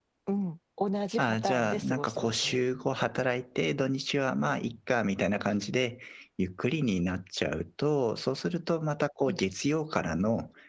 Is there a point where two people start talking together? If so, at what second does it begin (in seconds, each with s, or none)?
1.2 s